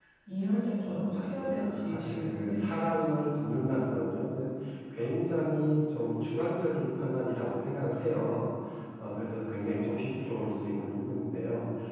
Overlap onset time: 0.8 s

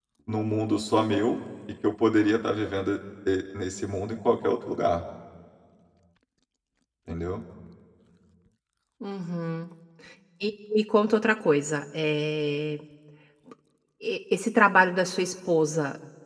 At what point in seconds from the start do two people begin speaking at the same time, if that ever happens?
none

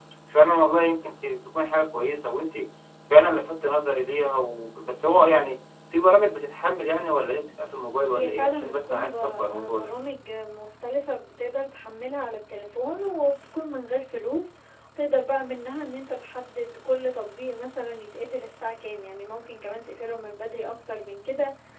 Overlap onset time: 8.1 s

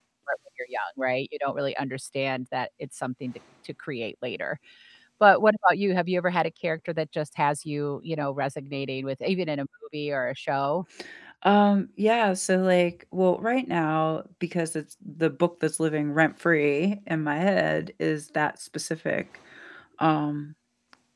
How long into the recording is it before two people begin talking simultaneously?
none

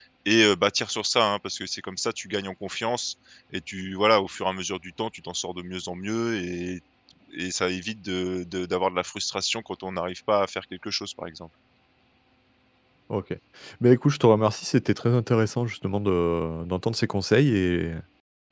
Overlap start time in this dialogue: none

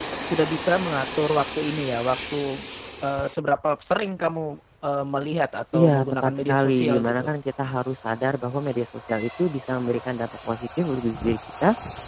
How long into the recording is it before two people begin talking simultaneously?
5.7 s

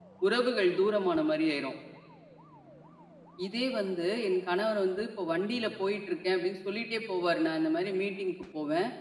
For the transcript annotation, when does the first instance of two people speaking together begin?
none

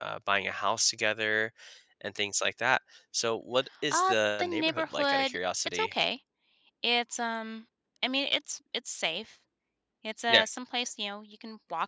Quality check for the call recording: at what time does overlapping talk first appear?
3.9 s

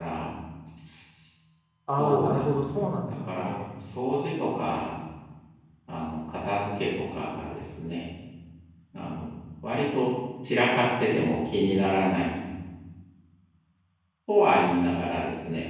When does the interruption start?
2.0 s

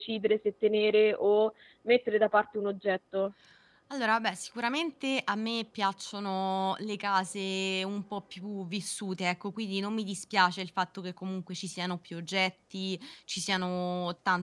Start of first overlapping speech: none

